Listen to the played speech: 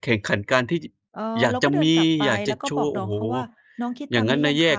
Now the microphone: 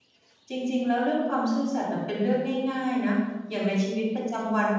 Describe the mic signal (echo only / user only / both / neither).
user only